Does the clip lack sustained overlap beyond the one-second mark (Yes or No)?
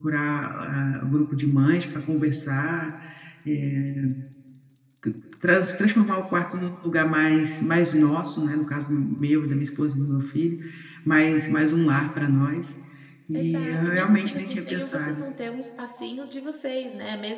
No